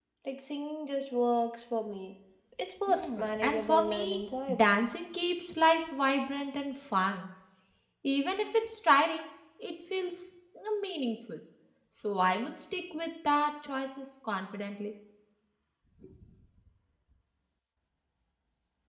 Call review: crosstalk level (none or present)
present